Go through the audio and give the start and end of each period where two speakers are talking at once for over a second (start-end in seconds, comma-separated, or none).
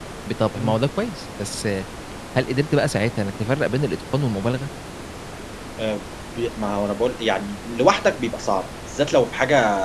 none